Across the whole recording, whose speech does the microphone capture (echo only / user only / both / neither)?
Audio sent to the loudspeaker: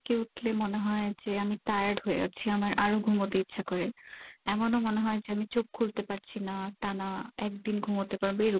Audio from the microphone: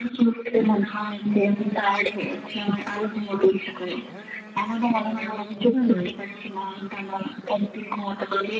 both